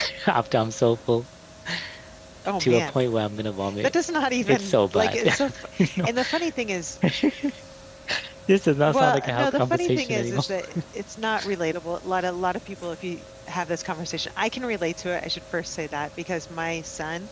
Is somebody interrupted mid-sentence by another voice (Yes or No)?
Yes